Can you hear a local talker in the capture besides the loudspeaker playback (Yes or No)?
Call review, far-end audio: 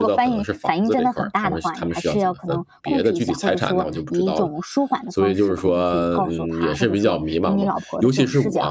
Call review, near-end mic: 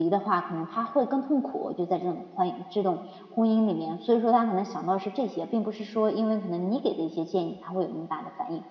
Yes